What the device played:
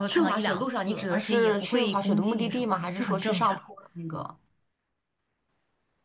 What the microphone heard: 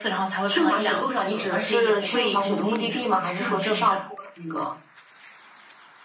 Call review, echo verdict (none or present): present